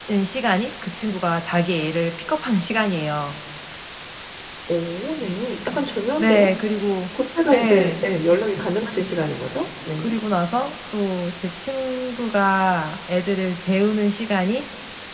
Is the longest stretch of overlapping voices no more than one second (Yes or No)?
Yes